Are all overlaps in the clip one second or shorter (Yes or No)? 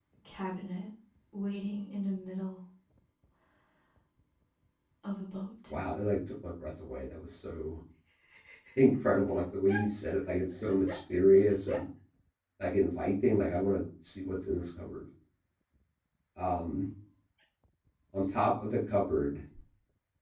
Yes